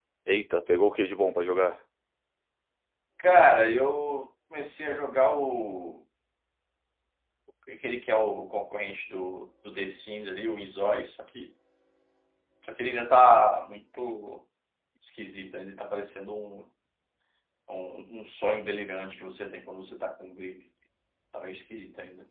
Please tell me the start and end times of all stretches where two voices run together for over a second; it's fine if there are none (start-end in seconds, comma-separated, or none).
none